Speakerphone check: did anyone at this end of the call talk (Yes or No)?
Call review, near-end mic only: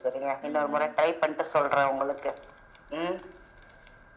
Yes